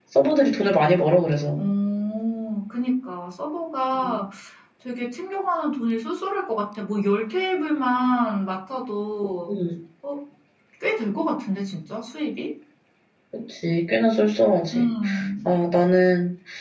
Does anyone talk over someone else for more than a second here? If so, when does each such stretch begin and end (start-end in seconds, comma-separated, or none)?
none